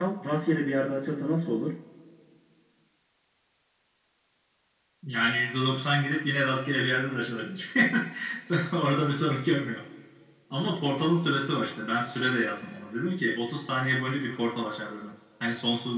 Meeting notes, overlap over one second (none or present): none